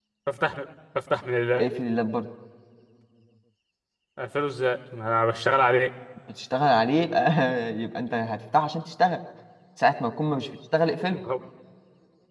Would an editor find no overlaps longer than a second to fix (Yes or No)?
Yes